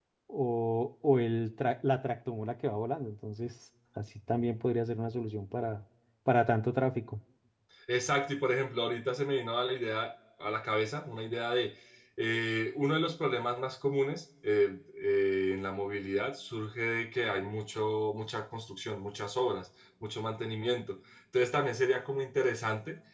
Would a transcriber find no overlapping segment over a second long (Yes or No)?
Yes